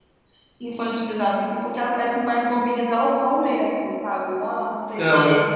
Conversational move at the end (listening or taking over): listening